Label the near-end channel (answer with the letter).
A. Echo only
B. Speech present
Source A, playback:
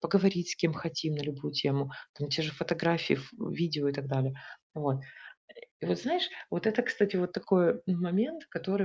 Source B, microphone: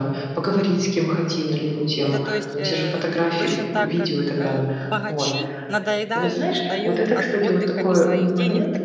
B